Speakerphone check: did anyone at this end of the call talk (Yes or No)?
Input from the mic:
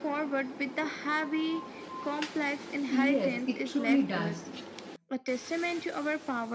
Yes